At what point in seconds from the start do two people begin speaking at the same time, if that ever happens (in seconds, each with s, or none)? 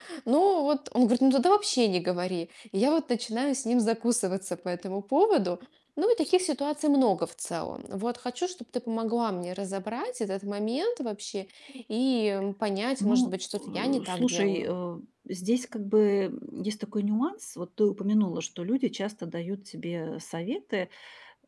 13.0 s